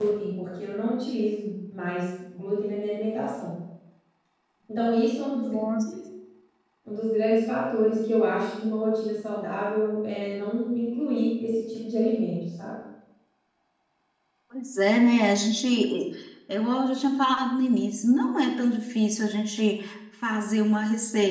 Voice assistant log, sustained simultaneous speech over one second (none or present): none